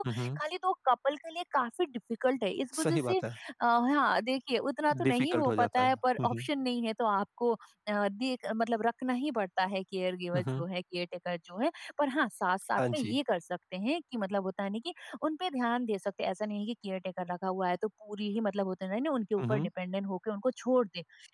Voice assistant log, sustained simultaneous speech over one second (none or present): present